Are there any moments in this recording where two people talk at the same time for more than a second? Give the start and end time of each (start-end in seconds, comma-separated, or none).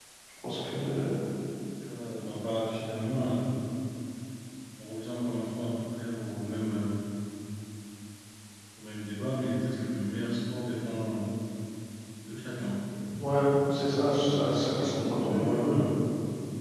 14.1-15.8